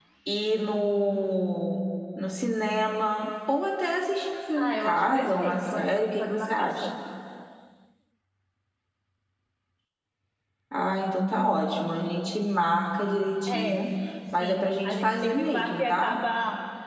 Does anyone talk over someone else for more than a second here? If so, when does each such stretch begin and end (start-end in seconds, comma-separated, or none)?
4.6-6.9, 14.4-16.2